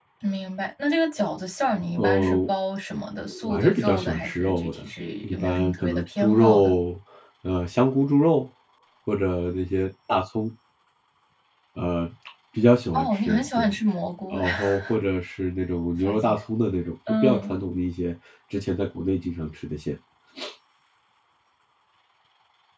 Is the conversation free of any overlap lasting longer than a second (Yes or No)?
No